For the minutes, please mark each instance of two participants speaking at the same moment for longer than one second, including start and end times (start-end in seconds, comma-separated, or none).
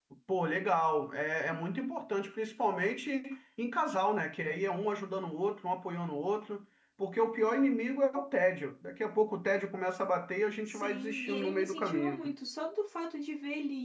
10.6-12.2